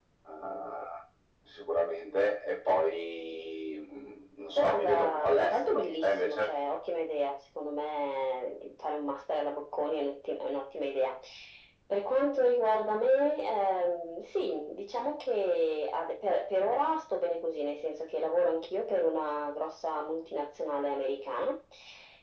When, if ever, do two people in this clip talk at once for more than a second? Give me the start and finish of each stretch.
4.6-6.5

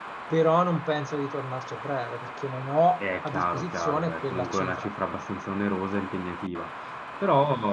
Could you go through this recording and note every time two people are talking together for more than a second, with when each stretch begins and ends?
3.2-4.9

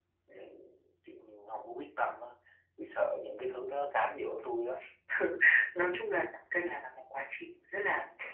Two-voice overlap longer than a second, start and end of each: none

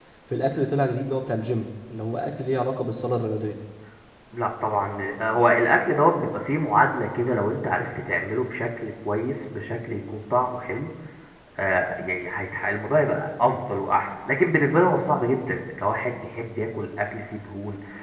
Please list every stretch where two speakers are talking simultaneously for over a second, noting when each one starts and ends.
none

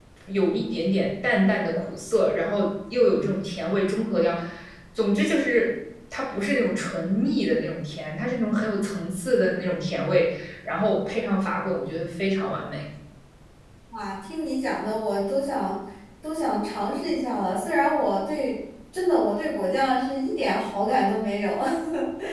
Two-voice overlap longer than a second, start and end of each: none

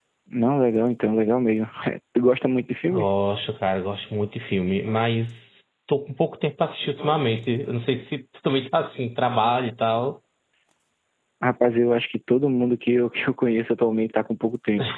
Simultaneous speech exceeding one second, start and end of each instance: none

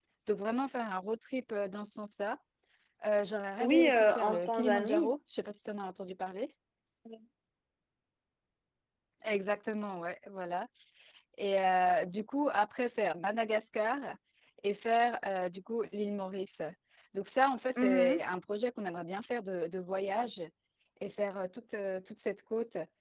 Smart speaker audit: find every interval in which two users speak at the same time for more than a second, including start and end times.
3.6-5.1

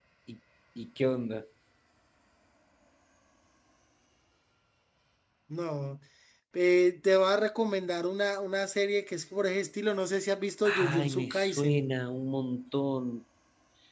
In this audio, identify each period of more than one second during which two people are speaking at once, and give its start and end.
10.6-11.9

